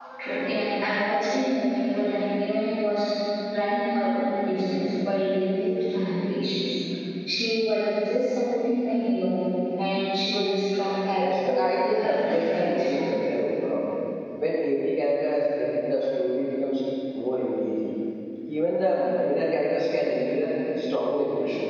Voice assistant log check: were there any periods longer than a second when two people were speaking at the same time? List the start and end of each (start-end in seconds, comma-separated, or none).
11.2-12.9